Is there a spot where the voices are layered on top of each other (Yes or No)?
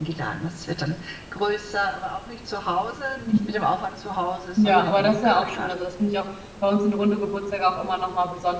Yes